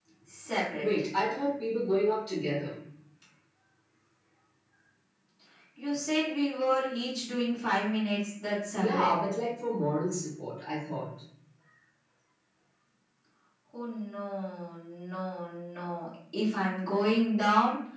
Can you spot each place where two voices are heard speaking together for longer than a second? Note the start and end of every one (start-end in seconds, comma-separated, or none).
none